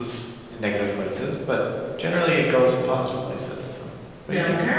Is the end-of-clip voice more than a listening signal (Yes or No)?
Yes